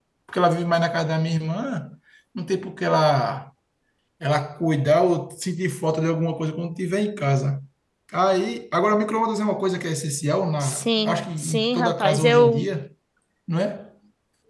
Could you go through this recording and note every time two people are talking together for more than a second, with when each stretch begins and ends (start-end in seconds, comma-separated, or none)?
10.6-12.7